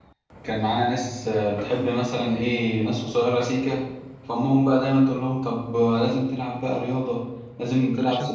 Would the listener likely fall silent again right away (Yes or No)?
Yes